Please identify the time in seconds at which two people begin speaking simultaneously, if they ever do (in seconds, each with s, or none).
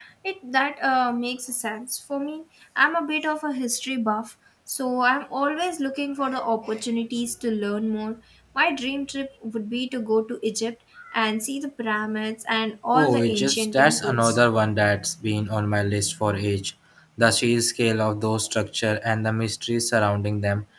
12.9 s